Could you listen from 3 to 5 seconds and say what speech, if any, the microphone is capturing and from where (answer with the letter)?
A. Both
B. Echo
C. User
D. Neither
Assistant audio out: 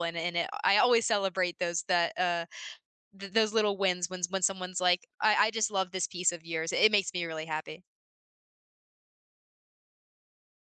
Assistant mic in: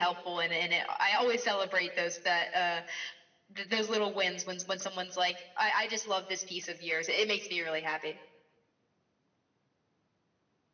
B